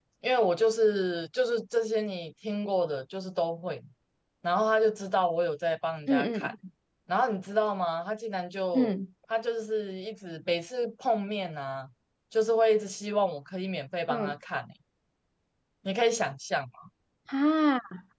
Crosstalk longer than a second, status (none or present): none